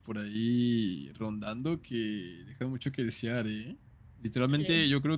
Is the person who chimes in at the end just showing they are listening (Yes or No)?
Yes